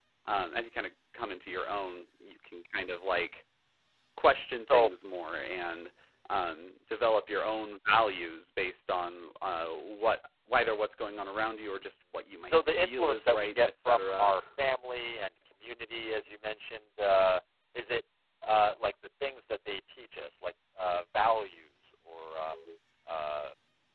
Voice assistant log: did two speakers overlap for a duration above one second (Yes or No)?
Yes